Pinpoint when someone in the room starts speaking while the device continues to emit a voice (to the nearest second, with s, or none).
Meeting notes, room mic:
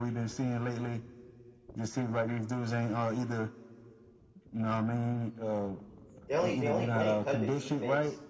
6 s